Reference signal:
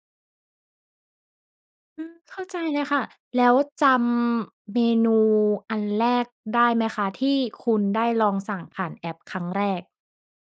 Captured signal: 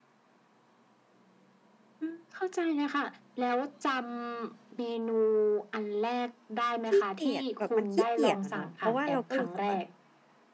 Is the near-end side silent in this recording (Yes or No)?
No